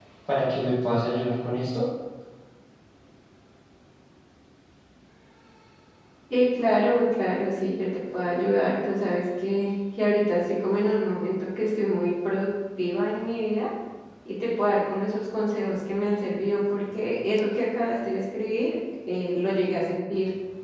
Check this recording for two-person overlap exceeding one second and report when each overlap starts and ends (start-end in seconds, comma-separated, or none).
none